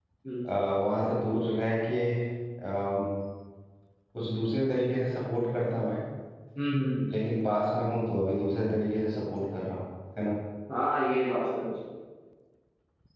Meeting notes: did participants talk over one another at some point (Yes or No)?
No